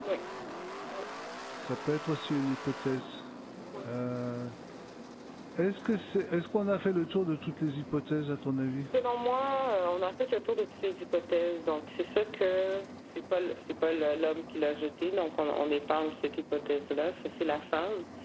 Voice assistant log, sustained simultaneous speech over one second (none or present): none